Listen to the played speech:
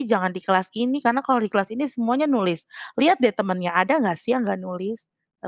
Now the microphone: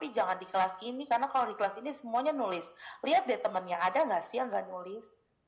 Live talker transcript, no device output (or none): none